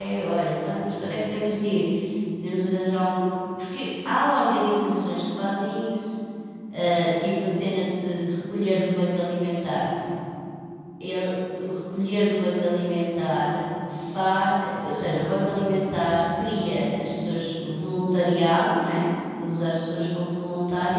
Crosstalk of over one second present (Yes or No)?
No